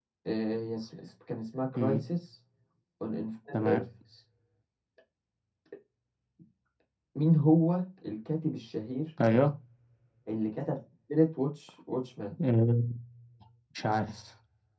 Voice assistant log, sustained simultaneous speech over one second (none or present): none